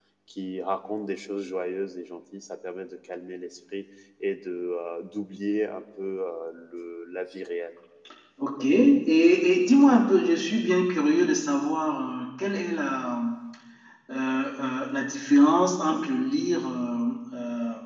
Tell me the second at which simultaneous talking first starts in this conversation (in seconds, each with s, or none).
none